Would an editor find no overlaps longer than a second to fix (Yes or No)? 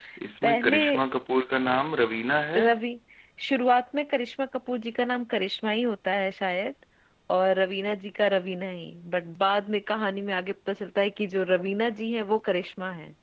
Yes